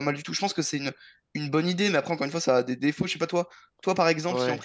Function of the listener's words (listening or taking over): listening